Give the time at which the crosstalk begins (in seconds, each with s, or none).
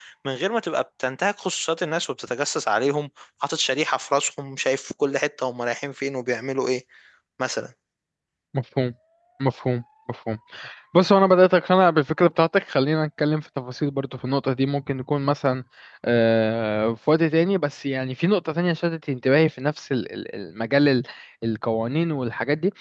none